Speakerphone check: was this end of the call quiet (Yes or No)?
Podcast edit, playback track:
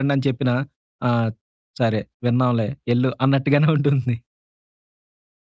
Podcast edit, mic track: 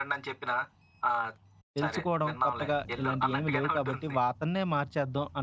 No